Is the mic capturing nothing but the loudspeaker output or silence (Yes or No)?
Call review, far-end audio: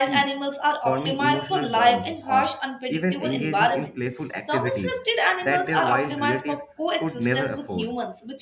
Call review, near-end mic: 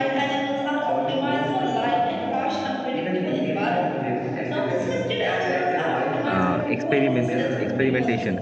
No